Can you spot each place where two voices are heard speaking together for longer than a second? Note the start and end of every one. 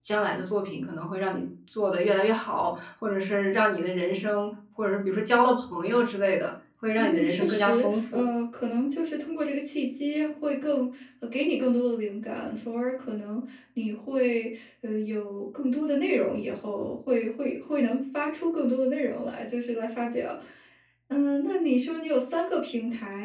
7.0-8.2

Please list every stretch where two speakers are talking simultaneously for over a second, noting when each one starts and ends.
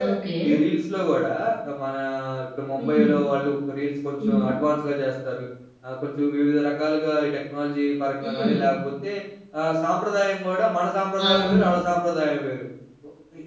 none

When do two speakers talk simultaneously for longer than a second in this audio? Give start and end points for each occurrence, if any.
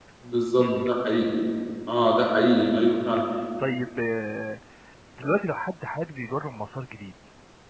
none

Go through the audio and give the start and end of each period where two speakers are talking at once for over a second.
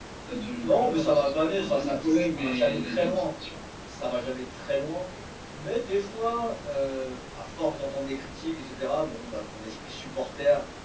0.6-3.2

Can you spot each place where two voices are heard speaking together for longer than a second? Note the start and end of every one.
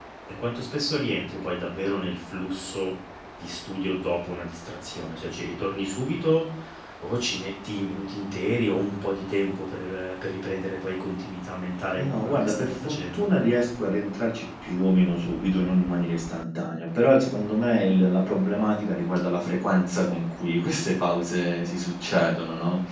11.9-13.3

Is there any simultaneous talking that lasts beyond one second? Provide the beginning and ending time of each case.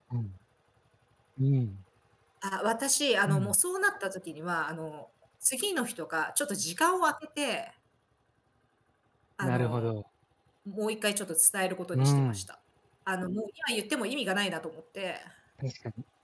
none

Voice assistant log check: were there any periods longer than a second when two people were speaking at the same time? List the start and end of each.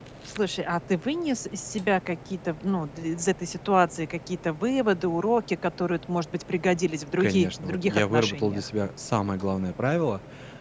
7.2-8.6

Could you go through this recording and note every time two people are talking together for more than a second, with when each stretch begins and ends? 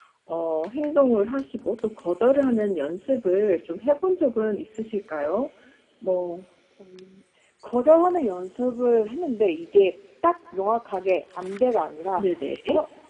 none

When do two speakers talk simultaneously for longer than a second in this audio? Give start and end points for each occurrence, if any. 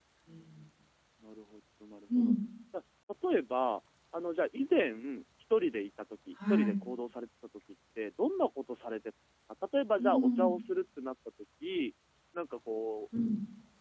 none

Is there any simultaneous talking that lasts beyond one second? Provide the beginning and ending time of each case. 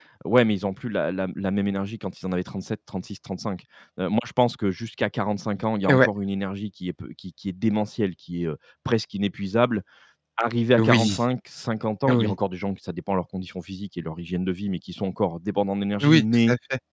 none

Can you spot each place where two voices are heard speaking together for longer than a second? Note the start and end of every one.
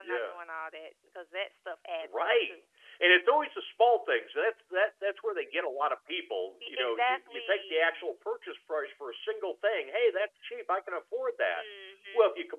6.7-7.9

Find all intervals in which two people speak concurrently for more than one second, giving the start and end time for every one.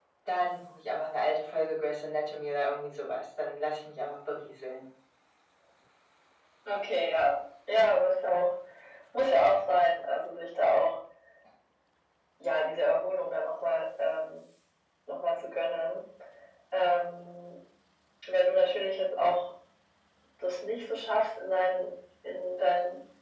none

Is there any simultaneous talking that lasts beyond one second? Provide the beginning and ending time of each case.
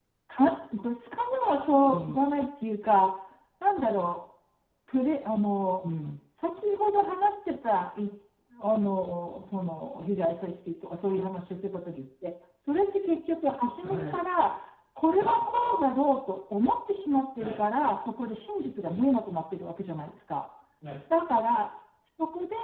none

